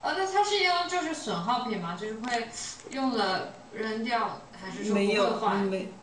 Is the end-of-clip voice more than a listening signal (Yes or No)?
Yes